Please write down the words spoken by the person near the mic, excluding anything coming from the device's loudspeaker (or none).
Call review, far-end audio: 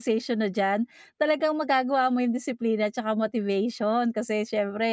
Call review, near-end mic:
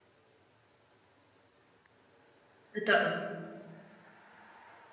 Totoo.